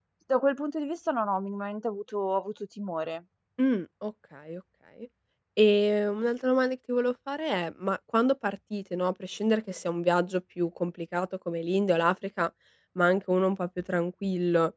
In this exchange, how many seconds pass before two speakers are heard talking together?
none

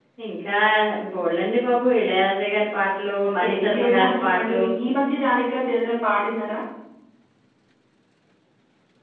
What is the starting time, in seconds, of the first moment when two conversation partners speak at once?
3.2 s

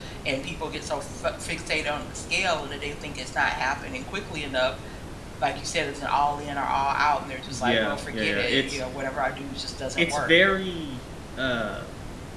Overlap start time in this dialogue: 7.5 s

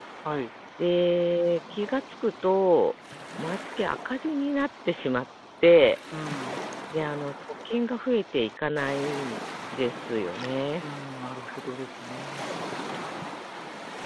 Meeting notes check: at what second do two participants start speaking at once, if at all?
none

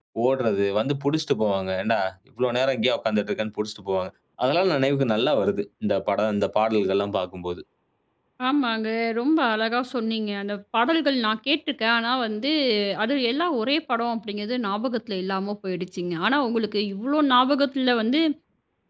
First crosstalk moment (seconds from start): none

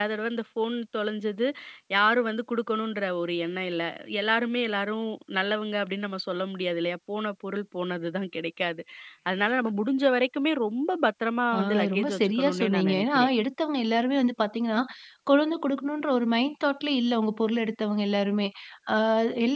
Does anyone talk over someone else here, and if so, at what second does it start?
11.5 s

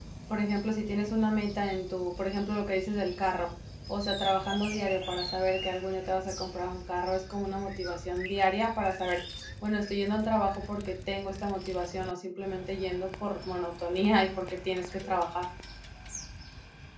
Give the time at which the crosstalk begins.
none

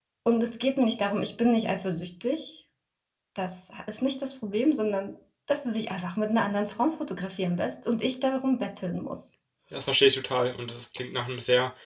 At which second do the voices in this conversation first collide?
none

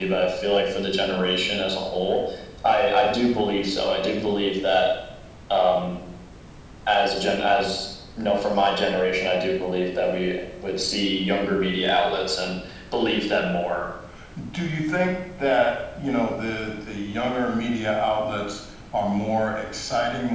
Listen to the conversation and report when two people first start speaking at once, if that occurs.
none

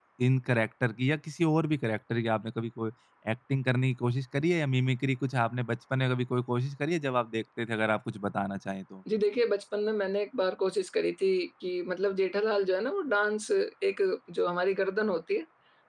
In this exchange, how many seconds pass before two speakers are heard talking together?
none

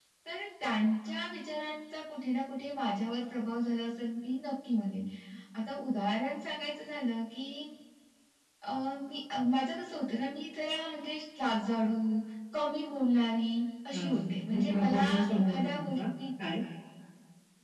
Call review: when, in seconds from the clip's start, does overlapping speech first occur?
13.9 s

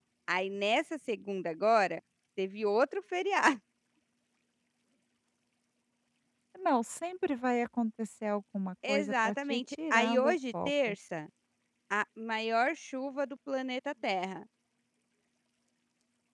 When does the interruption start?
8.8 s

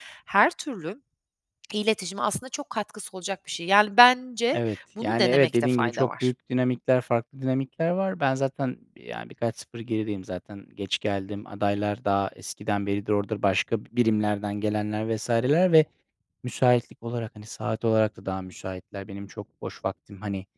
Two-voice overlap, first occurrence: 5.0 s

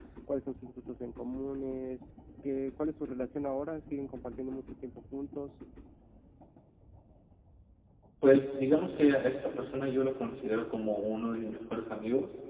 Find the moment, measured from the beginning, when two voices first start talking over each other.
none

